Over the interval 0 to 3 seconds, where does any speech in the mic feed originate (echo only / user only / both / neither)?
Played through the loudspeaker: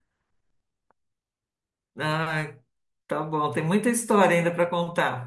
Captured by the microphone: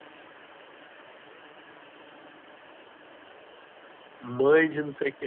neither